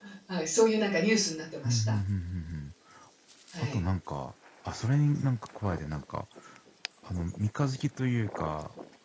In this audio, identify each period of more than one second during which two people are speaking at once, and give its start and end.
none

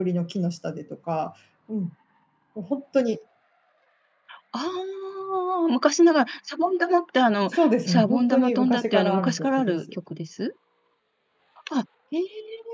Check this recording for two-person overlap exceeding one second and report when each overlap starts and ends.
7.5-9.8

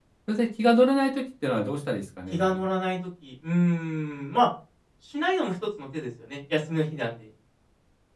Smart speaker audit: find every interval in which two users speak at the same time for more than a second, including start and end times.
none

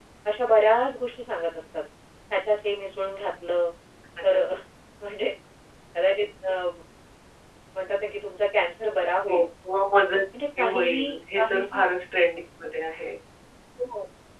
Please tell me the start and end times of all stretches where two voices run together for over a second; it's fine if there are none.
10.6-11.8

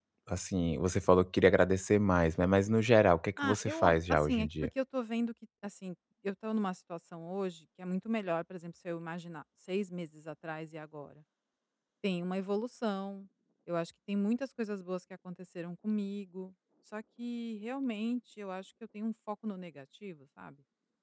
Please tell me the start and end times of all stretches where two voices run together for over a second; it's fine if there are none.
3.4-4.7

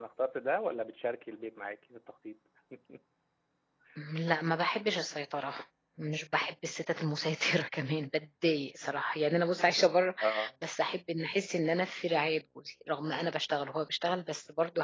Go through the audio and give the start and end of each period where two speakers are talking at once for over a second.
none

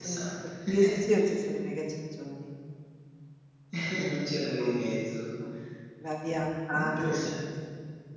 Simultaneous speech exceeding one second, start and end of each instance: none

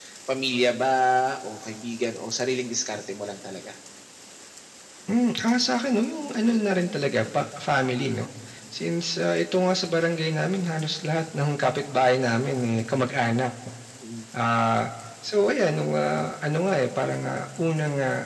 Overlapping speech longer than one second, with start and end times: none

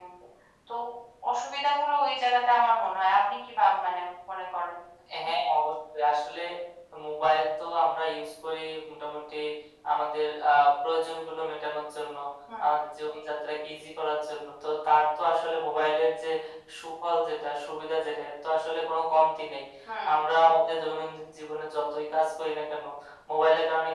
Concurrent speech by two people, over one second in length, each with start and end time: none

